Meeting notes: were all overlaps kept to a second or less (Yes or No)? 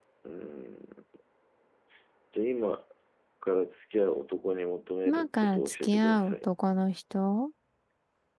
No